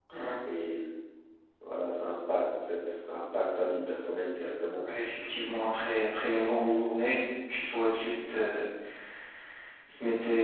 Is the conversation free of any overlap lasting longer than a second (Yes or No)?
Yes